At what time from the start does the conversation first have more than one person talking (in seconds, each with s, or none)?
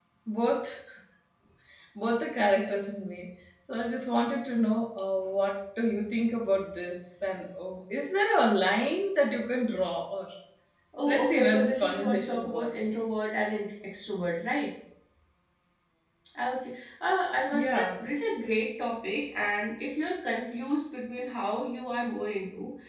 11.1 s